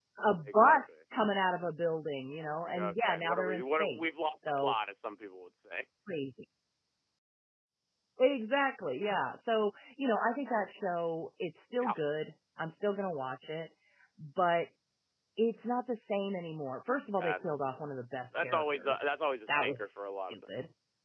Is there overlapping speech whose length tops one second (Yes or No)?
Yes